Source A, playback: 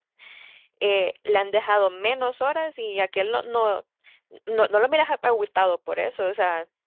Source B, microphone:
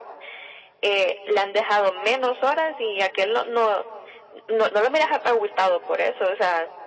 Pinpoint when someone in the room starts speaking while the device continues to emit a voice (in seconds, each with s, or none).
none